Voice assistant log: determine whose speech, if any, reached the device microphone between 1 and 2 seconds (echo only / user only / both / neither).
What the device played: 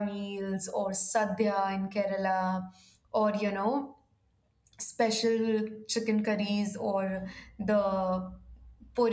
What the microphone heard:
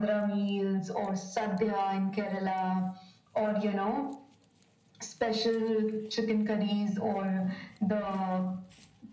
echo only